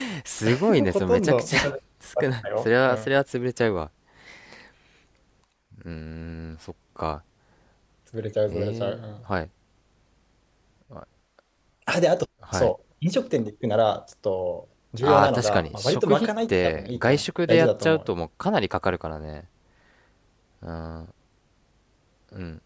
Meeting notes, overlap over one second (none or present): present